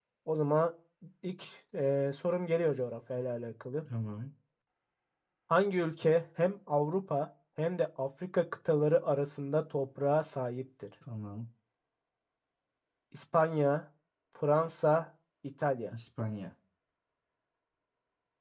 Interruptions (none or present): none